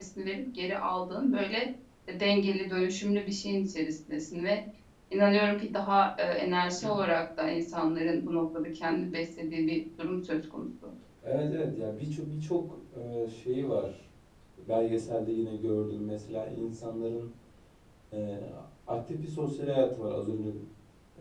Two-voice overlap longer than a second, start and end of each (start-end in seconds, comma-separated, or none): none